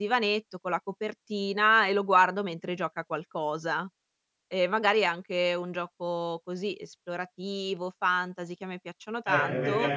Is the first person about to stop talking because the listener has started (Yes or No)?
Yes